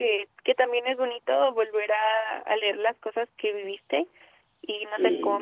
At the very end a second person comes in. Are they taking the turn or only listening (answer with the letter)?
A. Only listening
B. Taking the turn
A